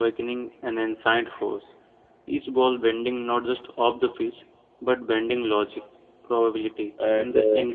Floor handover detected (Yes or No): No